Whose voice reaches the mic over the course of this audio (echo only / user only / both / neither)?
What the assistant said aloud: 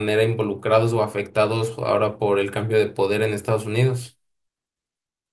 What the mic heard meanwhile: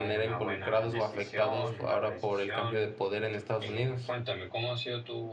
both